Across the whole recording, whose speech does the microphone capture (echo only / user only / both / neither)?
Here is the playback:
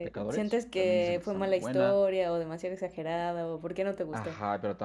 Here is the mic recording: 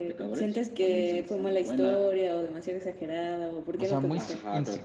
both